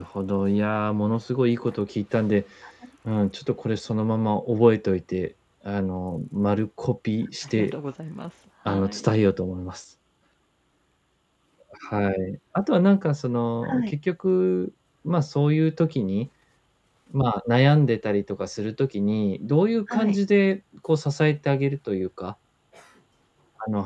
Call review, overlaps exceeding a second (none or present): none